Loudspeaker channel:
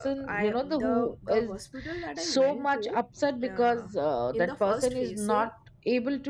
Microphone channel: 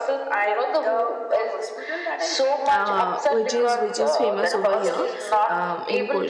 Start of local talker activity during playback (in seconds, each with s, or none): 2.7 s